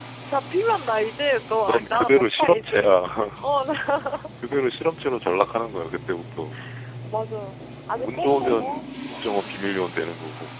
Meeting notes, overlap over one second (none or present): present